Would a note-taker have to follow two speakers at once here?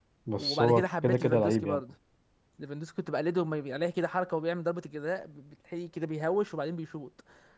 Yes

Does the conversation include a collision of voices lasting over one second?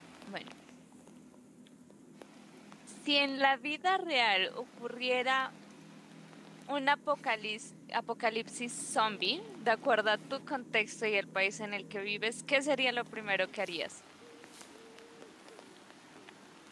No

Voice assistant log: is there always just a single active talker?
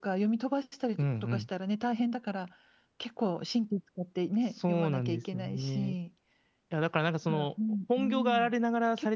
No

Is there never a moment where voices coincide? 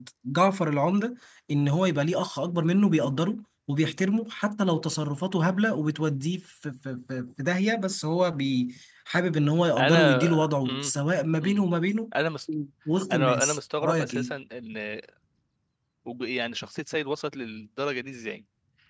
No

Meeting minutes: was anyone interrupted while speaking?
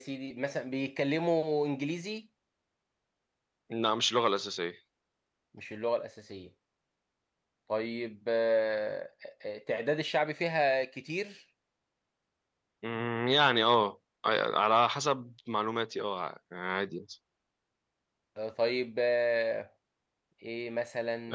No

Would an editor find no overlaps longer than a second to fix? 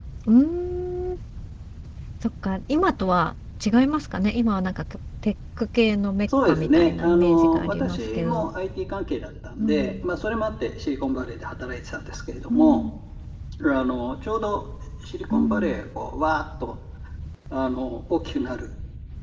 No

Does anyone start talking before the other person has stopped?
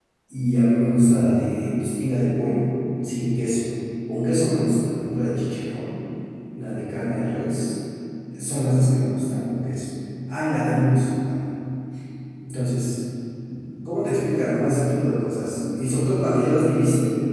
No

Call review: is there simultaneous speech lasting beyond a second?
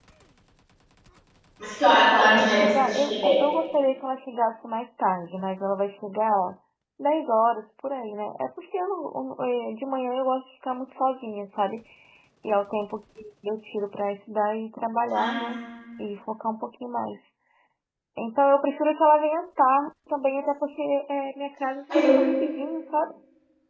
Yes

